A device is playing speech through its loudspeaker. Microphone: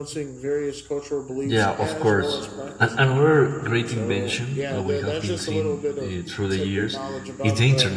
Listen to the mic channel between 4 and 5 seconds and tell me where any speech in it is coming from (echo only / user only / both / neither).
both